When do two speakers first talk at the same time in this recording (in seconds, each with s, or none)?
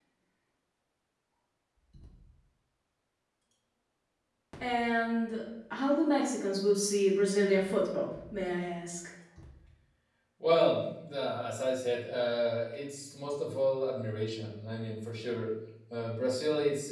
none